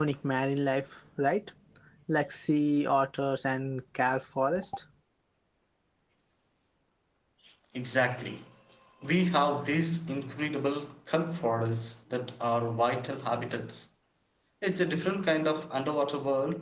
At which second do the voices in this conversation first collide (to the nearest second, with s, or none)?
none